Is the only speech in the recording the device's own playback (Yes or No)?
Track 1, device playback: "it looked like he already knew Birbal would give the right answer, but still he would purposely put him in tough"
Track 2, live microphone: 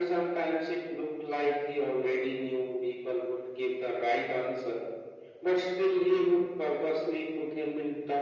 Yes